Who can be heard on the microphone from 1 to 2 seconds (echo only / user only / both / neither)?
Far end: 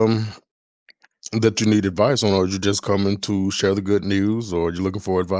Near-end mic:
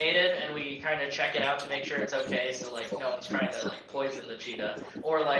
both